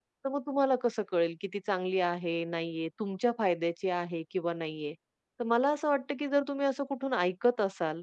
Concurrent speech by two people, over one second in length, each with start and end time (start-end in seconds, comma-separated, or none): none